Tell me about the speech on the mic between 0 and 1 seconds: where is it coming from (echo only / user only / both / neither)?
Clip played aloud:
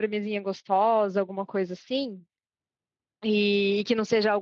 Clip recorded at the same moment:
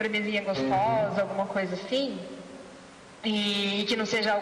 both